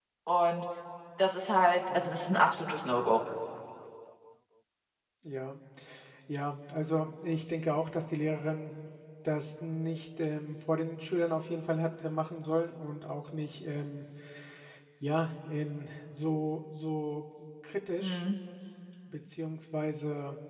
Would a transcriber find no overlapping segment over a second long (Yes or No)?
Yes